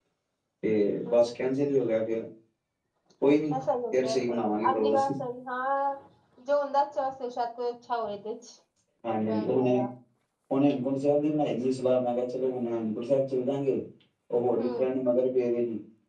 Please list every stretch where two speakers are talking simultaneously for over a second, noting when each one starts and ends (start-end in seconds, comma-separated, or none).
3.9-5.1